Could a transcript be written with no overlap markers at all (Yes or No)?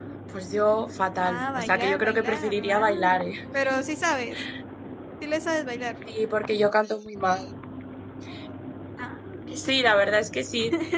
No